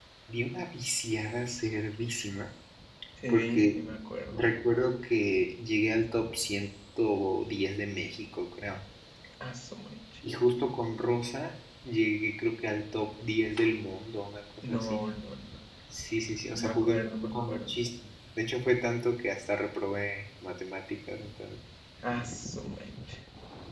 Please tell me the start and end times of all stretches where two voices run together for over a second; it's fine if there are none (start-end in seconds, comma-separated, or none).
16.6-17.8